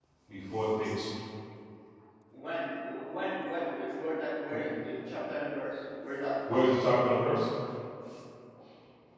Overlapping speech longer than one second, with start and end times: none

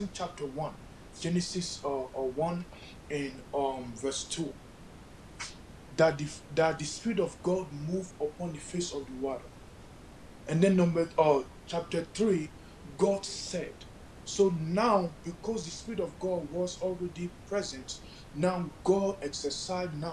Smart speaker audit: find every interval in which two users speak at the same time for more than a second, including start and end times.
none

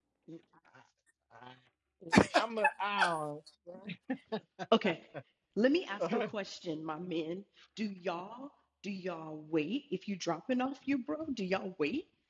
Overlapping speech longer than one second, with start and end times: none

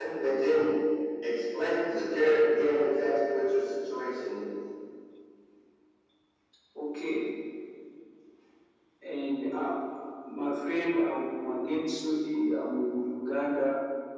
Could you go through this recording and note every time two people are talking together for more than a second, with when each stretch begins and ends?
none

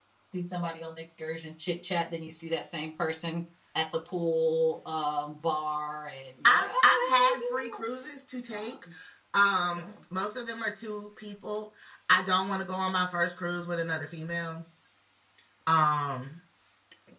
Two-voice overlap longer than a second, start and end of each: 6.4-7.8

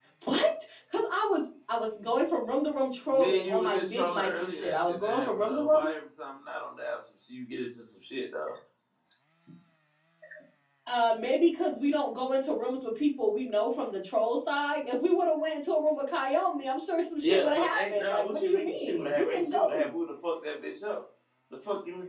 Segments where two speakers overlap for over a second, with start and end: 3.1-5.8, 17.2-19.6

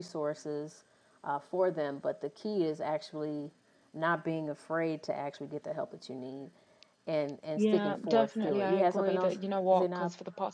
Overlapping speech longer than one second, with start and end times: 7.6-9.4

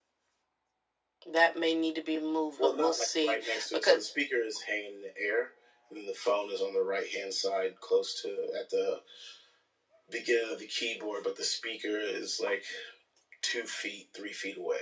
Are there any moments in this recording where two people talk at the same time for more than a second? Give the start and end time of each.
2.6-4.0

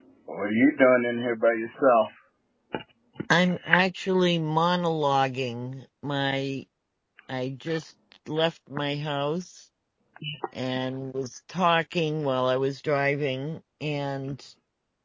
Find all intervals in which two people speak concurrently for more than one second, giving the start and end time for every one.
none

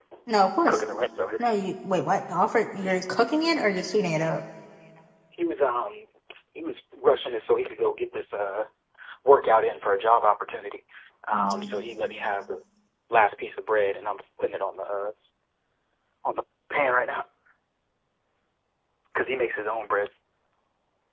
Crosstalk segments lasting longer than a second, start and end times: none

